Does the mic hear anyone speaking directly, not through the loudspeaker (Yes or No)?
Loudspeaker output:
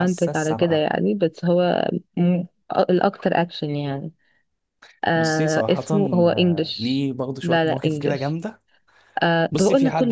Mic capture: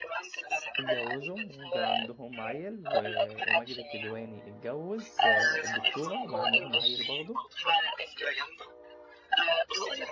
Yes